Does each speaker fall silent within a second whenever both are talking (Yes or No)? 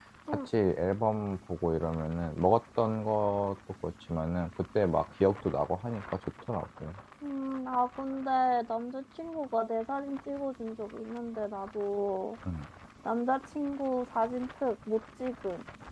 Yes